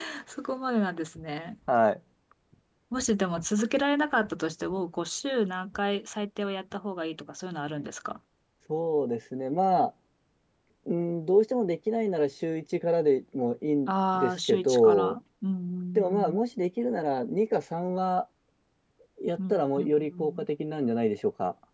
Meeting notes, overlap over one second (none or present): present